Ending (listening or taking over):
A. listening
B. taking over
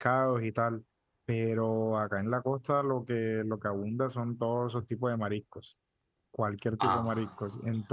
A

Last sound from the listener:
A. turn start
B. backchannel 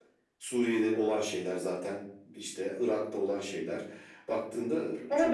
A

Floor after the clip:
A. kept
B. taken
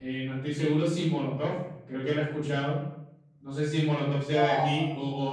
A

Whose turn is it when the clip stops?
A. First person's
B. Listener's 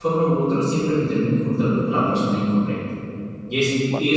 A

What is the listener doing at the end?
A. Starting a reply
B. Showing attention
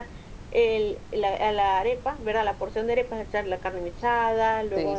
B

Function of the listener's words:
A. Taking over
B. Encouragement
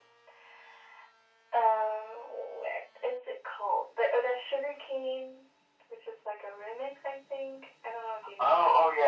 A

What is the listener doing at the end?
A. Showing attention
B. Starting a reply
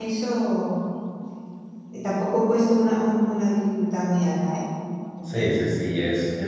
B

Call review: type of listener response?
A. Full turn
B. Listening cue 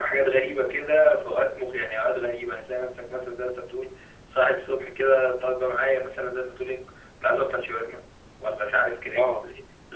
B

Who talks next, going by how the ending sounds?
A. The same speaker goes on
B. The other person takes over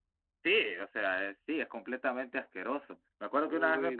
A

